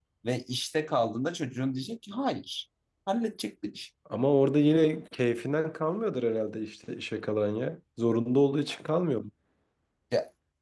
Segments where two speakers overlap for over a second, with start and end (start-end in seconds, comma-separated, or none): none